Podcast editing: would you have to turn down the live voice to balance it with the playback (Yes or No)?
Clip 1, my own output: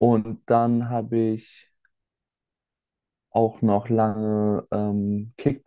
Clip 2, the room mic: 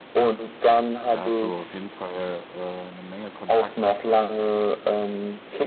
No